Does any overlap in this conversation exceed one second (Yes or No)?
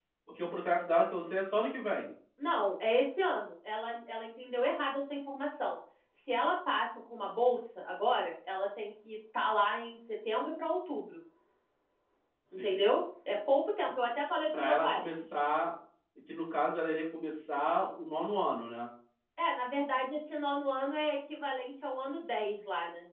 No